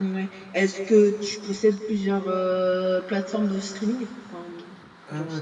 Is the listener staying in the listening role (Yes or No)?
No